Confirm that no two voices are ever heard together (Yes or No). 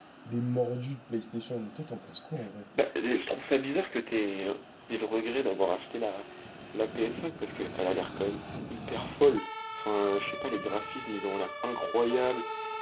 Yes